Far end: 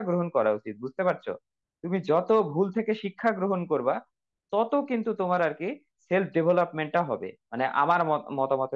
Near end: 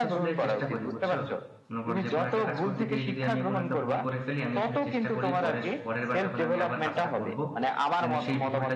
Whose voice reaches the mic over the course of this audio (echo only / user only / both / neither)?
both